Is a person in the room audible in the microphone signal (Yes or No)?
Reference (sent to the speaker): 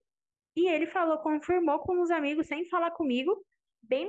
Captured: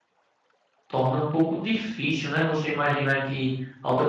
Yes